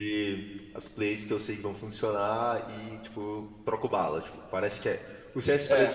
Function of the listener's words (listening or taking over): listening